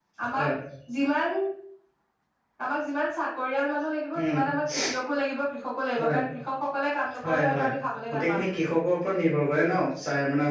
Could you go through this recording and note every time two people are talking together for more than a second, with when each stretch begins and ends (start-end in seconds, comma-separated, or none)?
none